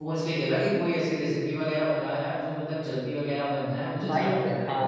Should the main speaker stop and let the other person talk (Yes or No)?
Yes